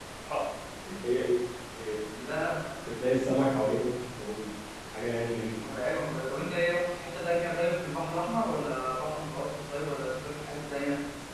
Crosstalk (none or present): none